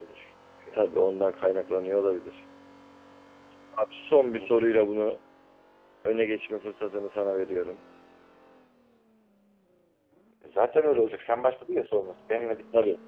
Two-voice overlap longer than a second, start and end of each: none

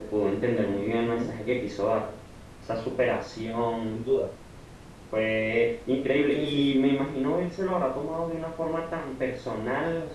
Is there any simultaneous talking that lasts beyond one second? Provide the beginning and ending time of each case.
none

